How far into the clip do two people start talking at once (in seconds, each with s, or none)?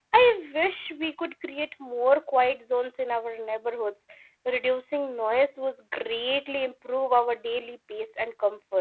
none